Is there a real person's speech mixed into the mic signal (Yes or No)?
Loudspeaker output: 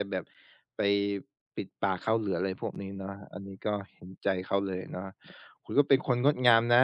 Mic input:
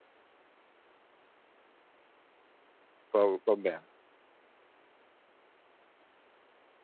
Yes